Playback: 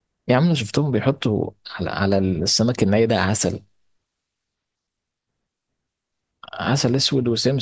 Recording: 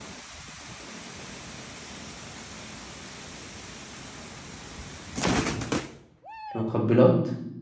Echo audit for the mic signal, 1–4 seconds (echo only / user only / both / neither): neither